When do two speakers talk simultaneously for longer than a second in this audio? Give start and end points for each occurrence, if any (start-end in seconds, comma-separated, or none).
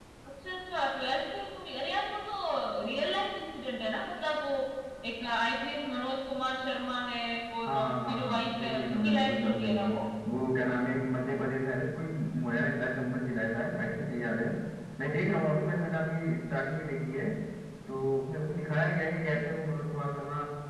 7.7-9.9